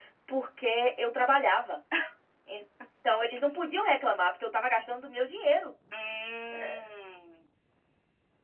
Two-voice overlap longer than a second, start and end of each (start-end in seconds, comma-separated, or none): none